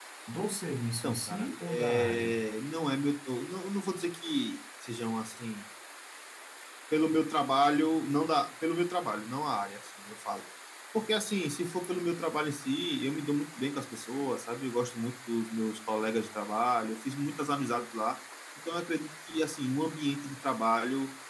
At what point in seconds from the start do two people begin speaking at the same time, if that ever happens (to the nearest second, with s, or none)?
1 s